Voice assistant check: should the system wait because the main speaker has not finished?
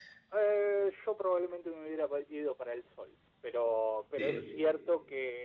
Yes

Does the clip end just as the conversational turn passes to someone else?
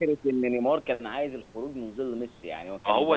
Yes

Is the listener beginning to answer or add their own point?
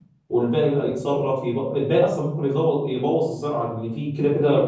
No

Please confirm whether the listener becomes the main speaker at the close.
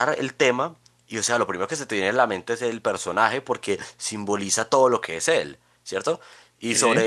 No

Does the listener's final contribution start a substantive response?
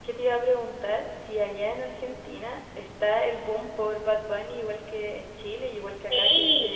Yes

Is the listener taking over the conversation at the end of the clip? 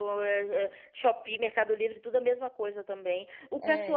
No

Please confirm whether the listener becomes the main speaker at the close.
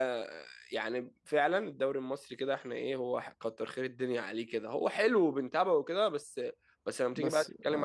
No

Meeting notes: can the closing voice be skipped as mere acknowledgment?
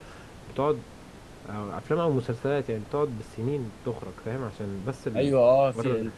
No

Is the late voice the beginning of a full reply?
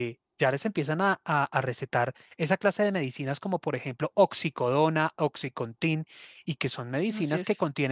No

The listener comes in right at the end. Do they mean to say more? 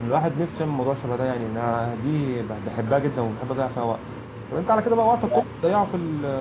No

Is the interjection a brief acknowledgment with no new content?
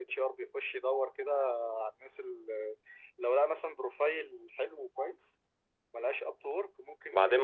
No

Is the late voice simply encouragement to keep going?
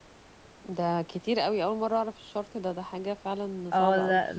No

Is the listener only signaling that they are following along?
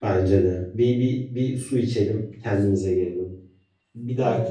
Yes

